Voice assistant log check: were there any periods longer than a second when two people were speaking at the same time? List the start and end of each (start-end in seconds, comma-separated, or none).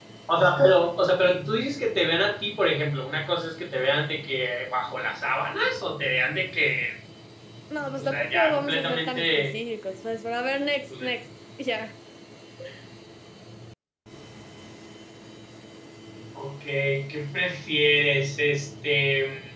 8.0-9.5